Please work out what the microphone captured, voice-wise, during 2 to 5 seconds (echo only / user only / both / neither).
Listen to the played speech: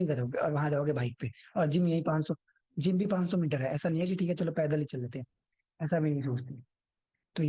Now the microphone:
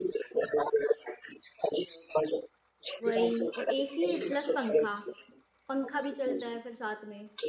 both